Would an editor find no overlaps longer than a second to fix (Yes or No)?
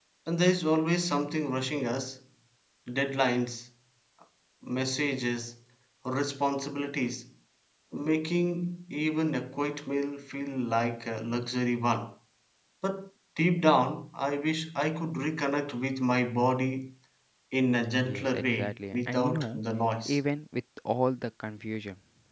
No